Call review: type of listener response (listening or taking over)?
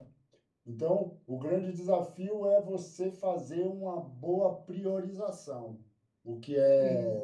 listening